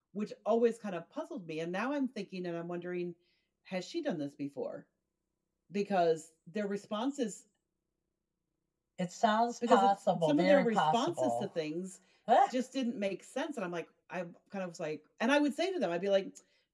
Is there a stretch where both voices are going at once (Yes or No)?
Yes